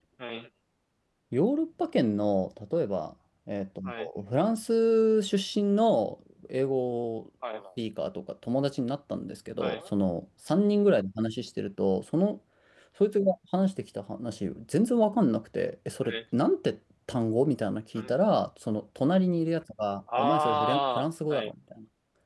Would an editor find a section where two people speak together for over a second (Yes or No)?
Yes